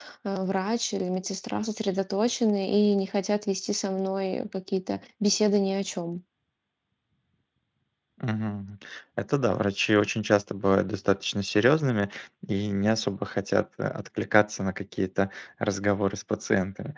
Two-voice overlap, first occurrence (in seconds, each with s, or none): none